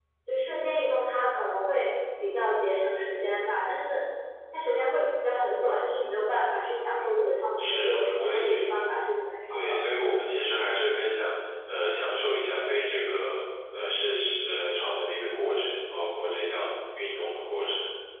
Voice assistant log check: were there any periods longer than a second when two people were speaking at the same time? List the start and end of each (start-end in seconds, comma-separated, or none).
7.6-8.8